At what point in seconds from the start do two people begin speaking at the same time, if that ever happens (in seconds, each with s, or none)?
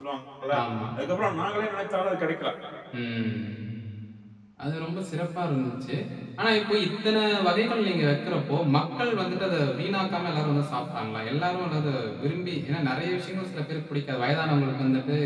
none